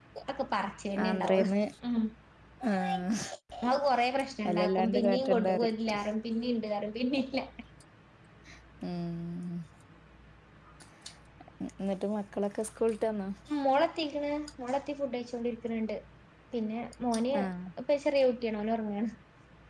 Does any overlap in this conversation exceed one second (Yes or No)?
Yes